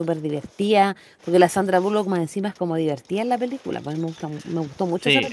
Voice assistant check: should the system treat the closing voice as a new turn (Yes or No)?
Yes